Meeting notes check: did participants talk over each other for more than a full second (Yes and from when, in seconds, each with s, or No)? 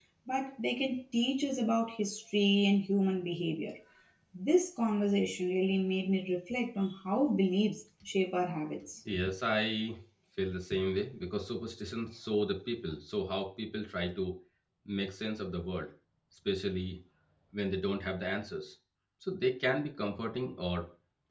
No